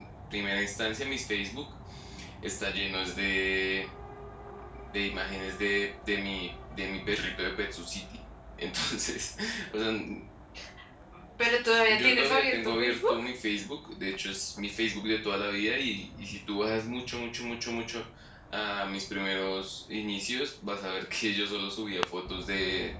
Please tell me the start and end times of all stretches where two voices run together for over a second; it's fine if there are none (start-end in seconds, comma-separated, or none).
11.9-13.2